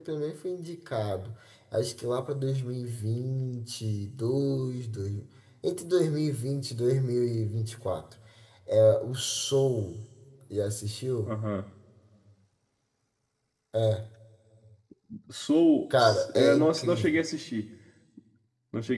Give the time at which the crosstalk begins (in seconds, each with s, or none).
16.0 s